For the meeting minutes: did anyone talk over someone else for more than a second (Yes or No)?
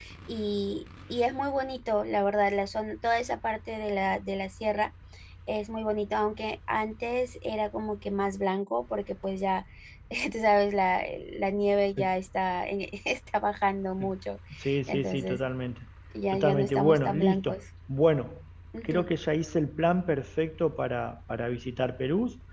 Yes